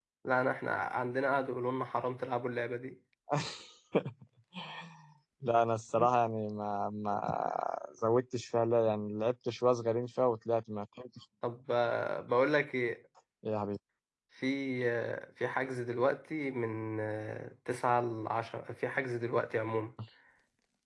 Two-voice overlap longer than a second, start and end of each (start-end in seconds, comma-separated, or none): none